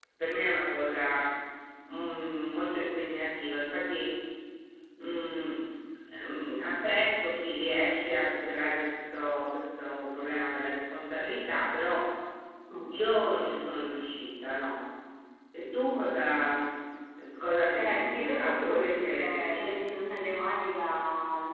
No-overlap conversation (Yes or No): No